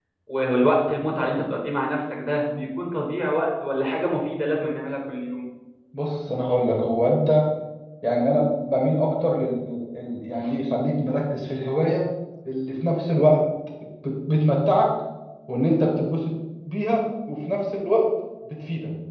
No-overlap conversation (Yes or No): Yes